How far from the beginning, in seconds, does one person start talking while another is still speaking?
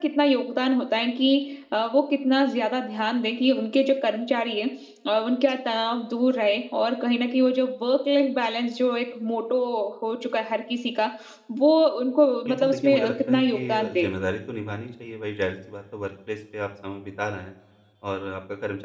12.4 s

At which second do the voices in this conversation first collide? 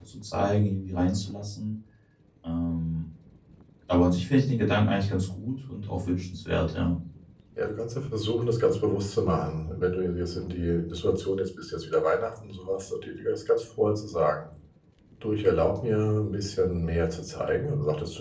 none

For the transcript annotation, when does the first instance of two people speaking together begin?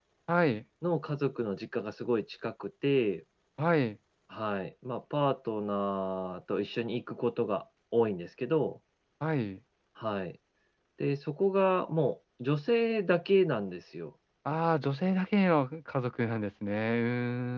none

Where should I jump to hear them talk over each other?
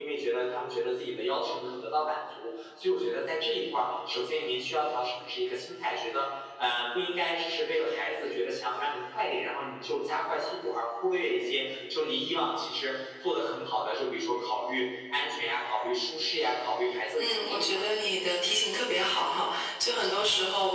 17.2 s

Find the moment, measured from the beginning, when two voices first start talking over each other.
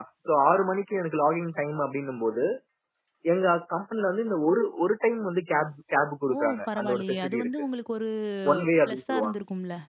6.3 s

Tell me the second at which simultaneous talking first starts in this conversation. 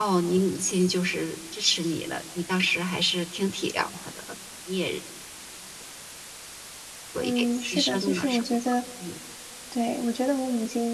7.2 s

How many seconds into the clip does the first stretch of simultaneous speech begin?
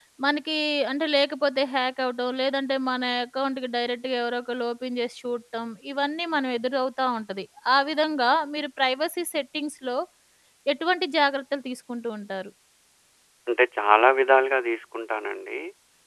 none

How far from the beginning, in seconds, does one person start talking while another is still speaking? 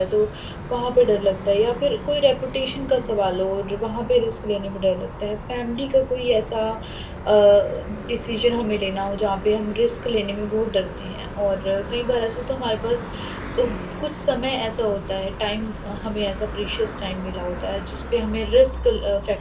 none

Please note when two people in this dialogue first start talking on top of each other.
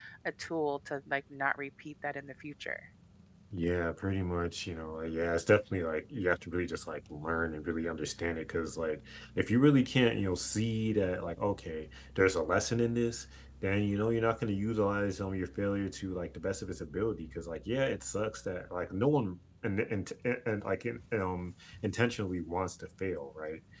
none

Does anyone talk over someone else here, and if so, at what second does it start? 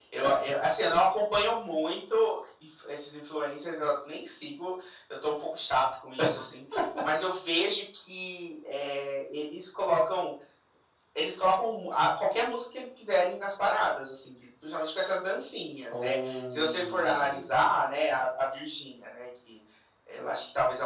15.9 s

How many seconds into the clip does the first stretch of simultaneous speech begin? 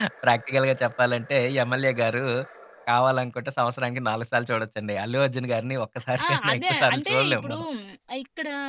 6.2 s

